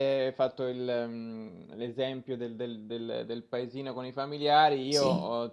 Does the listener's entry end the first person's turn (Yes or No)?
No